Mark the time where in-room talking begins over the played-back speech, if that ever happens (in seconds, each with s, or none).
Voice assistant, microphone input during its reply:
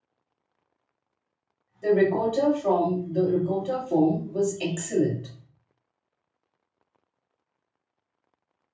1.8 s